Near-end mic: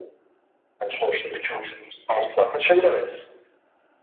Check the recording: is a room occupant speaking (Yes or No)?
No